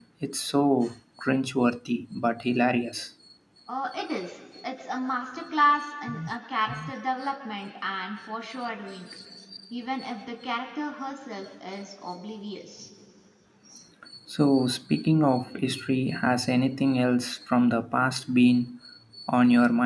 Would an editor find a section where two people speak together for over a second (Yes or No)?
No